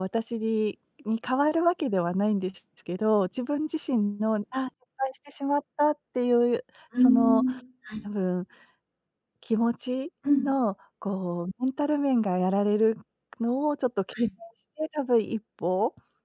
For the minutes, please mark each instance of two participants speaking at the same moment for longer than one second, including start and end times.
none

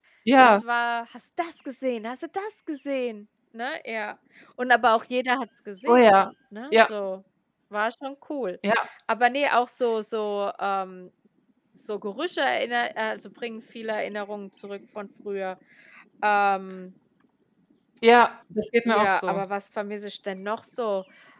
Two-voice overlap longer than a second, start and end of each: none

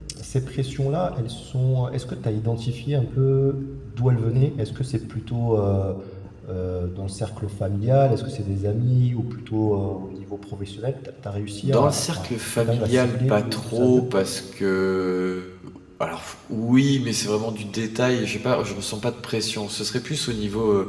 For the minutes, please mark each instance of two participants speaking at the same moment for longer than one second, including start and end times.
11.6-14.0

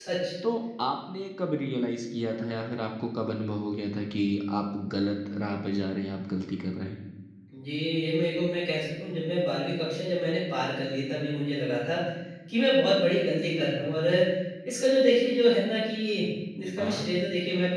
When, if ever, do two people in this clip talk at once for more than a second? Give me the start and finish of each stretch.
none

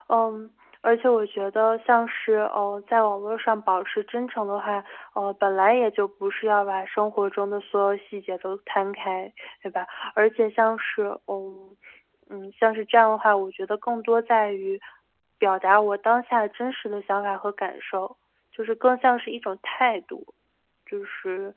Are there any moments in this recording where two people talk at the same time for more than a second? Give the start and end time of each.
none

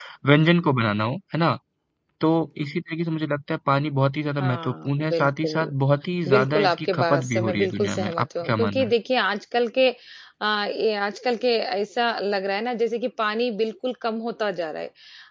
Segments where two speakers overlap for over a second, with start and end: 4.4-5.7, 6.3-8.9

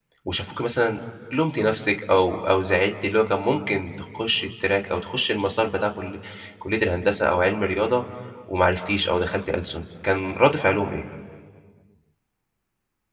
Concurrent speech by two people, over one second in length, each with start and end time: none

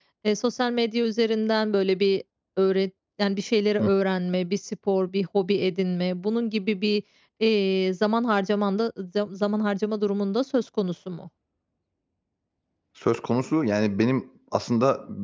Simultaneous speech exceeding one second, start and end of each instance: none

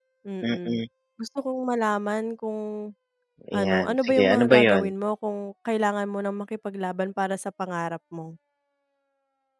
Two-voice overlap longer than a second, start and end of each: 3.5-4.9

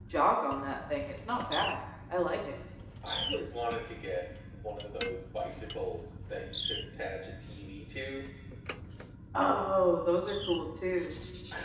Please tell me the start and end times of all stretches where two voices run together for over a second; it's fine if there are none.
none

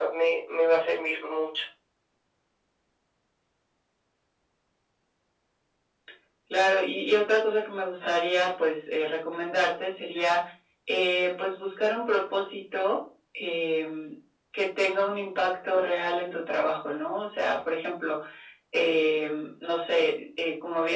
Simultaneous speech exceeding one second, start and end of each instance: none

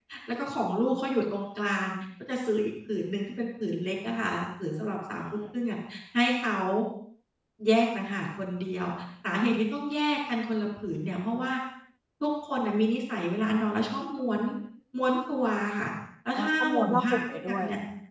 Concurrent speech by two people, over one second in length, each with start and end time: 16.4-17.6

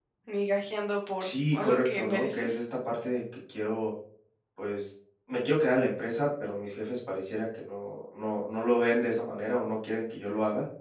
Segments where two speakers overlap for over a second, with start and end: 1.2-2.6

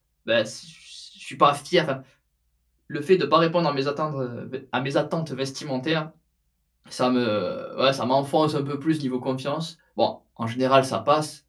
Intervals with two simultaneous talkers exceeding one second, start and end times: none

